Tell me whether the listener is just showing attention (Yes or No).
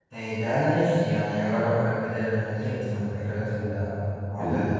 No